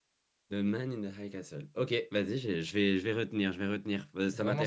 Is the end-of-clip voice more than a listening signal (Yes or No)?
Yes